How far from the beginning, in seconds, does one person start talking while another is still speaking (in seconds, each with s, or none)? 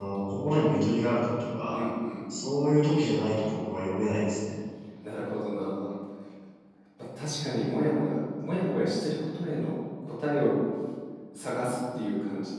none